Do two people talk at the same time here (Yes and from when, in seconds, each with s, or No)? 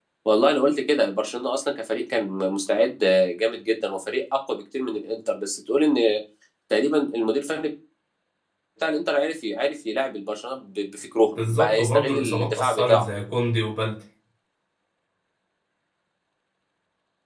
Yes, from 11.3 s